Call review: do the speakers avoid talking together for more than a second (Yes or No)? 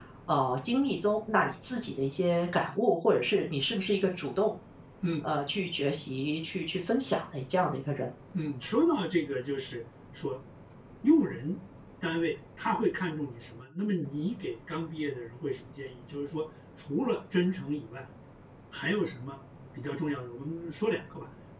Yes